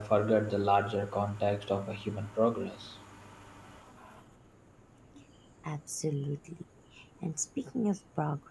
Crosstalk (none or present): none